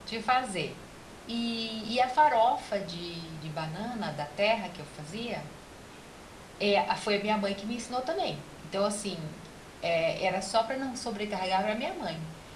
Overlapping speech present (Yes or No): No